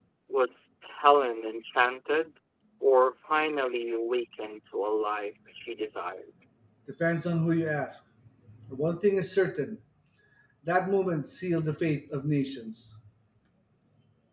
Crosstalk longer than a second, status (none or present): none